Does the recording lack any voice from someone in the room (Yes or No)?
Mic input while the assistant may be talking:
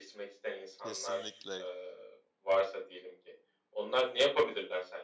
No